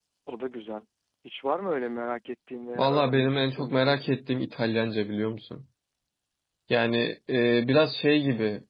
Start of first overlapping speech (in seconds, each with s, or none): 2.8 s